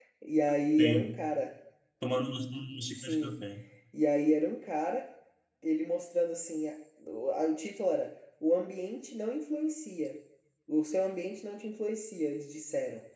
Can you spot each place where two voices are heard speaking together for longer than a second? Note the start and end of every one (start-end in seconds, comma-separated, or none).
none